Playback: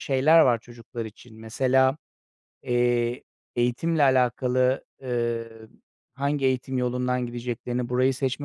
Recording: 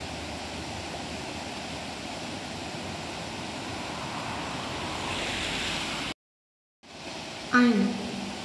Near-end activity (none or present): present